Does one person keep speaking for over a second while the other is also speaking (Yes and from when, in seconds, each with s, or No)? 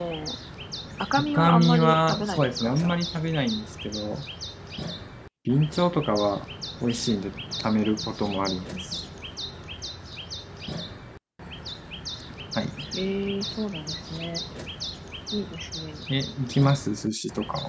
Yes, from 1.2 s